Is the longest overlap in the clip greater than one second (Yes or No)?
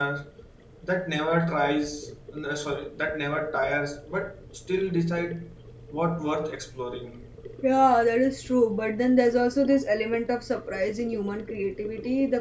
No